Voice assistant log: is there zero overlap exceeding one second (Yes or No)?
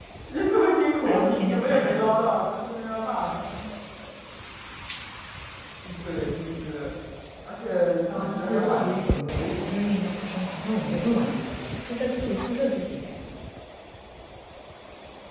No